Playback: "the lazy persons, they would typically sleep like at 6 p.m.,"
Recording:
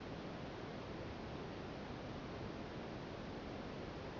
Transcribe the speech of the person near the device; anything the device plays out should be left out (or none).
none